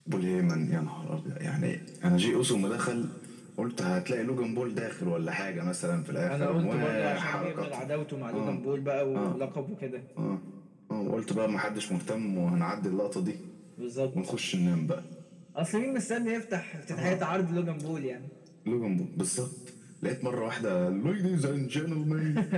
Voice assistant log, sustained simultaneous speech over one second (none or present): present